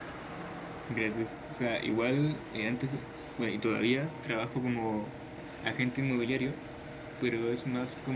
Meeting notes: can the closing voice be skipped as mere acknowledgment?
Yes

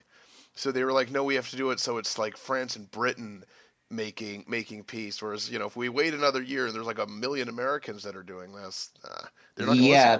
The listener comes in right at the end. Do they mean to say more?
Yes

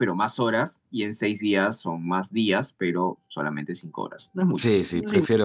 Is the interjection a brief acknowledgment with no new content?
No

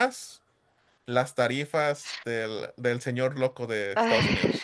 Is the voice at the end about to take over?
Yes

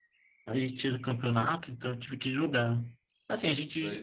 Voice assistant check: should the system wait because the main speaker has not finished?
Yes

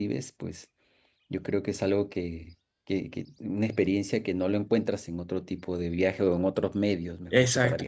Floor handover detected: Yes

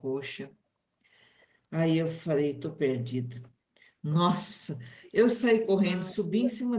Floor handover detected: No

